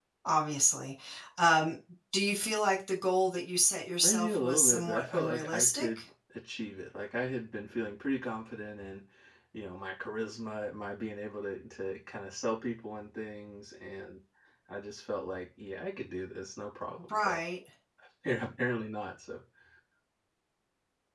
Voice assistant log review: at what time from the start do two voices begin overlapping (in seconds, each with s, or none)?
4.0 s